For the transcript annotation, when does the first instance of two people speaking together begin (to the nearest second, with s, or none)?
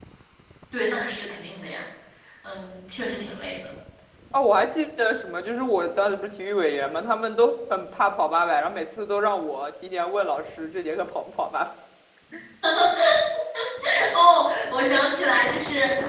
none